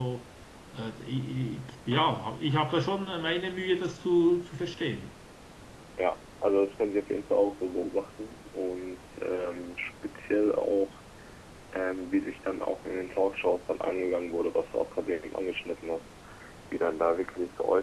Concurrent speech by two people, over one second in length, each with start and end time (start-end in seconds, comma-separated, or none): none